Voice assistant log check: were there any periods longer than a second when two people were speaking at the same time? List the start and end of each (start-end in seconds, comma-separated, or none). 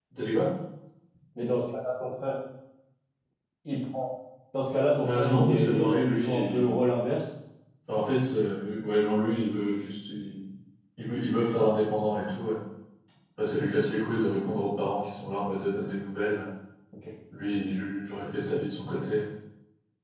5.0-6.7